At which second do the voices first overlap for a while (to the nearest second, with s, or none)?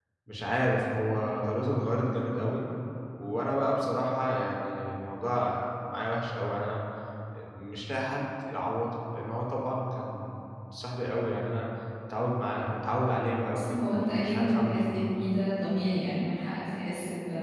14 s